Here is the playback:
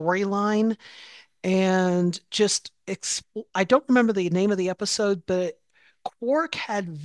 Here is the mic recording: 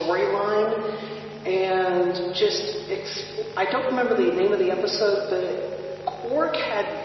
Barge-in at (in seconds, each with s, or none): none